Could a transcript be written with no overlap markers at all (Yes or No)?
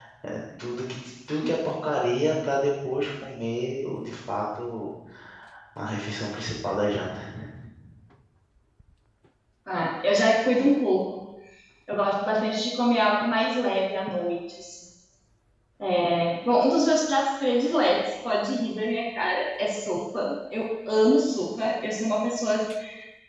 Yes